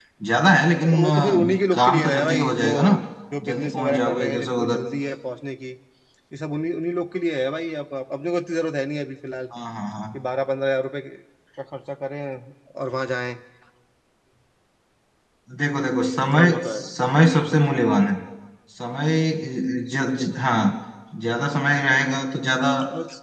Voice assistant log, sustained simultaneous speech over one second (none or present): present